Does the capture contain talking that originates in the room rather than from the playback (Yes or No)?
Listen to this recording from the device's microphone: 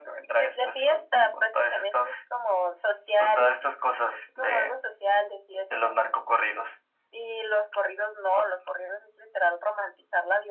No